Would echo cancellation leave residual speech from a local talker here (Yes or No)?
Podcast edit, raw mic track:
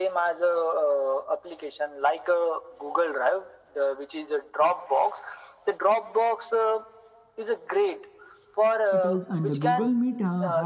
Yes